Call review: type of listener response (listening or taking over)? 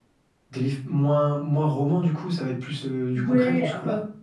taking over